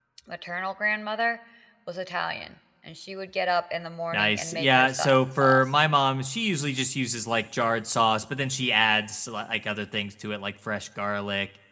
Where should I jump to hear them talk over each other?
4 s

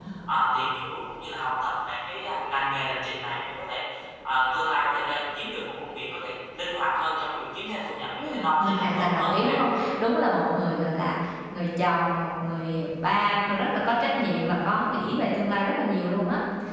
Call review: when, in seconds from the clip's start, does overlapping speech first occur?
8 s

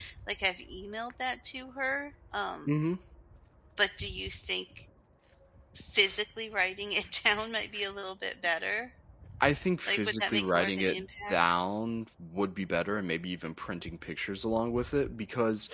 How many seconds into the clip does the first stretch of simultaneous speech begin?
10 s

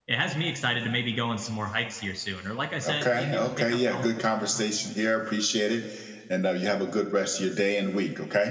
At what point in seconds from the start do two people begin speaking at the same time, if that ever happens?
3 s

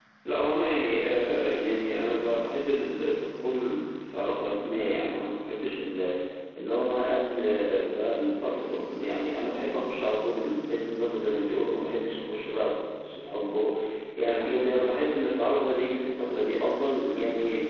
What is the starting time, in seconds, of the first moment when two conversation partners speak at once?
none

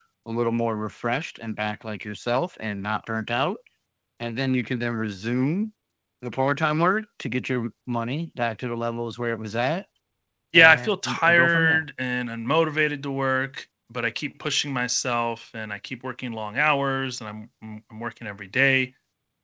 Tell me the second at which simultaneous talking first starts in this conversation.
11 s

